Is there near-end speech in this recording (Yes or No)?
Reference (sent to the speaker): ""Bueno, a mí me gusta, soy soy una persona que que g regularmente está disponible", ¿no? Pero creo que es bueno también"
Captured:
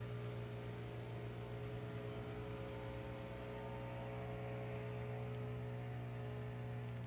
No